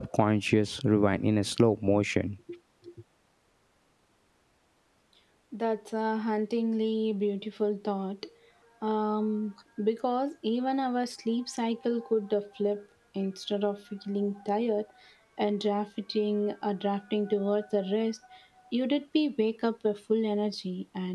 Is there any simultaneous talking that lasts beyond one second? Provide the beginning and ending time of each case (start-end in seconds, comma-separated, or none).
none